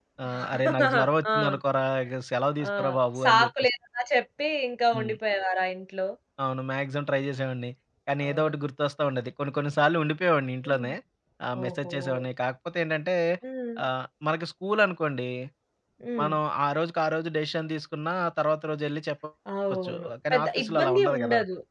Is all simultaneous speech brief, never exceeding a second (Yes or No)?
No